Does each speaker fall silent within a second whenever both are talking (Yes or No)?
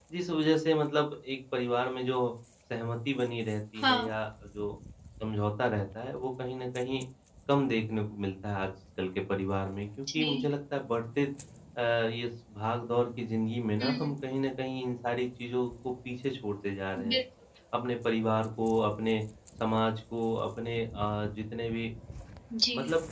Yes